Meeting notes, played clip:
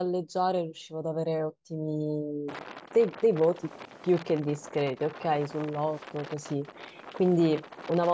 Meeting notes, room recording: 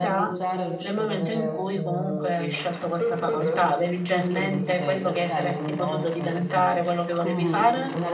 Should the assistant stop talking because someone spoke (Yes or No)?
Yes